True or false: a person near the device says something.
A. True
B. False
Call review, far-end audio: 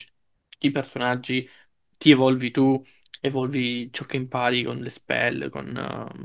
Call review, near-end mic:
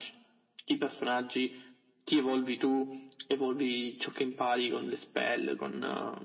B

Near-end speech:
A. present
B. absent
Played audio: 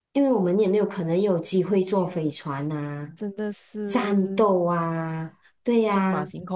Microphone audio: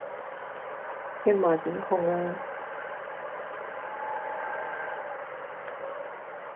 A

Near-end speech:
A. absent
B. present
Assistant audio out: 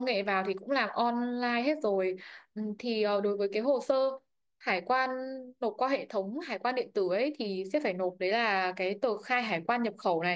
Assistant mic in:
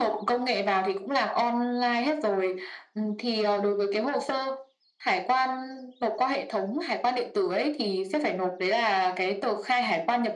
A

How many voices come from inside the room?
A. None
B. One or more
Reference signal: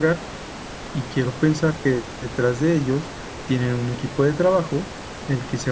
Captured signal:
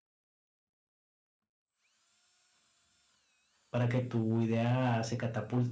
B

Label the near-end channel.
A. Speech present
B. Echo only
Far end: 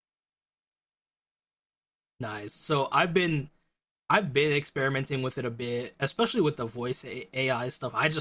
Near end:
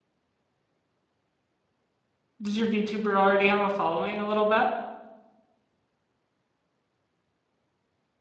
A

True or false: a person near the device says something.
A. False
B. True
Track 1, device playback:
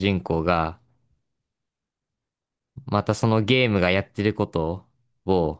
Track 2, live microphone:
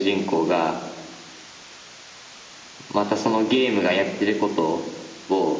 A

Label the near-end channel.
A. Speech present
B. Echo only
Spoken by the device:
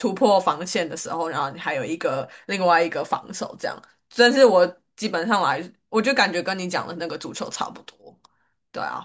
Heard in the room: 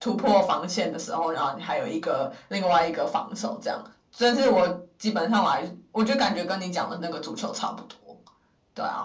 B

